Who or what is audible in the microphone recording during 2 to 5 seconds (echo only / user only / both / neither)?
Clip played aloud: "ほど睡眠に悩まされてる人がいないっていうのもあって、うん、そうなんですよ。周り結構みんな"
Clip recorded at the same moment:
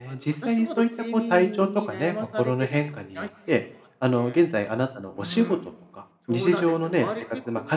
both